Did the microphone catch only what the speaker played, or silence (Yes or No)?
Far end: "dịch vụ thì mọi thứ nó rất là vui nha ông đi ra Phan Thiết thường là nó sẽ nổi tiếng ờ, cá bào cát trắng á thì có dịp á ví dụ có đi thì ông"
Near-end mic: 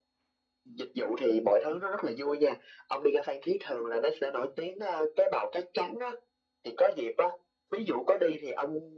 Yes